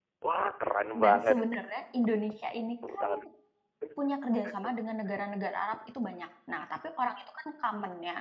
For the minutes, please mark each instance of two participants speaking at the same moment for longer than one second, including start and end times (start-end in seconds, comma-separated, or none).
none